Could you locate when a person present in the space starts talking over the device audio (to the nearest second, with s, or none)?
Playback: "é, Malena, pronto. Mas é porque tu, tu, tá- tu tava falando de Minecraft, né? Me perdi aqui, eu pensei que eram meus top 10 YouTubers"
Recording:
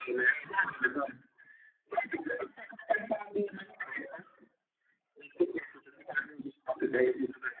none